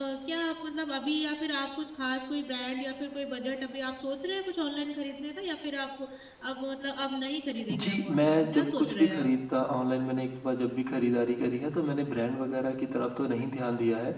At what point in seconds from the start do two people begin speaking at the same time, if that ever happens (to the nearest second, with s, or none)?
8 s